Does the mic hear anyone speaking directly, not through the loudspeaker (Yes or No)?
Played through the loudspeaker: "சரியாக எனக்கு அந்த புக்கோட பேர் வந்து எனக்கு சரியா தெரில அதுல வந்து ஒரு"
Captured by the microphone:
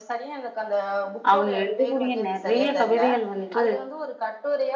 Yes